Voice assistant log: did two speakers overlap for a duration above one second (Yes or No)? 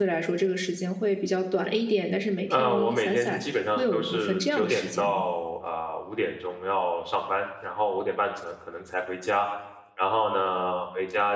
Yes